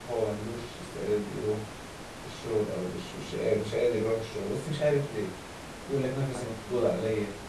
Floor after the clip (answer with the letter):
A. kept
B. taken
A